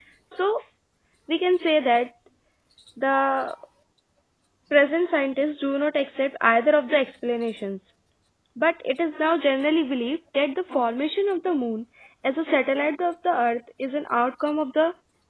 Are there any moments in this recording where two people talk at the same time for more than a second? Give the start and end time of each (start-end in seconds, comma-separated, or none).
none